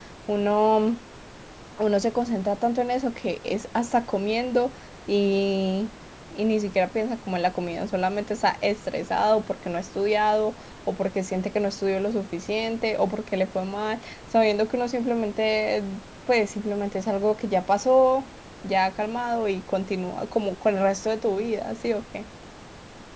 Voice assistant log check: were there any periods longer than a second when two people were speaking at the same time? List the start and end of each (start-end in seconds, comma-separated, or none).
none